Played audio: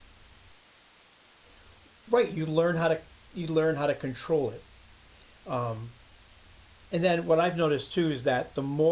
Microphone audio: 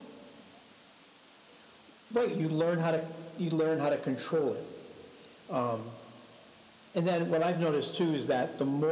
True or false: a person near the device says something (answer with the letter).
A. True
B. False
B